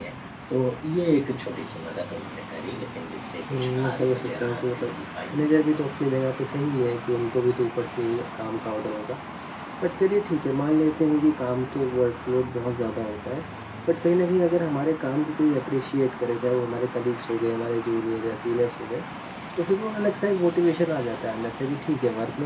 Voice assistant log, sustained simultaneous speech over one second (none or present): present